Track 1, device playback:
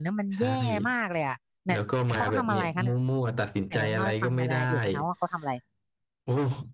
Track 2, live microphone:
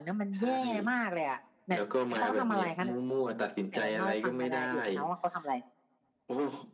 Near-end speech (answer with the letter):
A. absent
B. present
A